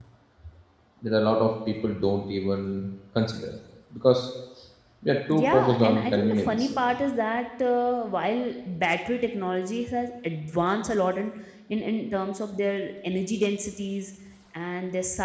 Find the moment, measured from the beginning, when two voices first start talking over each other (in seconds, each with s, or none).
5.3 s